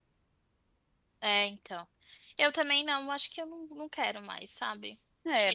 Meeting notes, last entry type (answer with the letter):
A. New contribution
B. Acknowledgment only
A